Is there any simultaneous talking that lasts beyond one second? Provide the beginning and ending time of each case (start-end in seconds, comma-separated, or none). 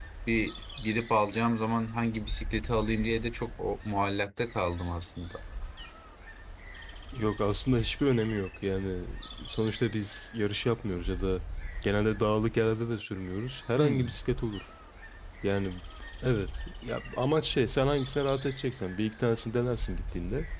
none